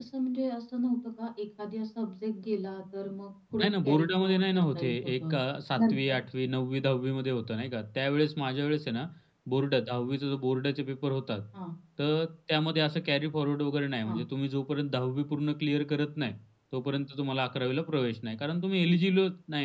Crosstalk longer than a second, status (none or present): present